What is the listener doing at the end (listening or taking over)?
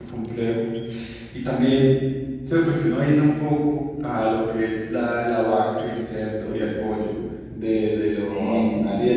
listening